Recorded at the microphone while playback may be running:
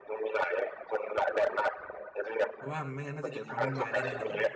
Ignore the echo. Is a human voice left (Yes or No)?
Yes